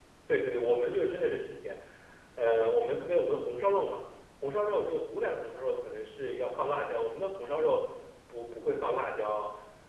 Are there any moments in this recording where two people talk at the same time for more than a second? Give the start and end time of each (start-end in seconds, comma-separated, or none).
none